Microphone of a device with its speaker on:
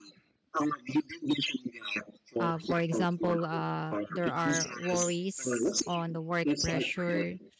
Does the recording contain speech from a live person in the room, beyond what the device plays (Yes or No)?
Yes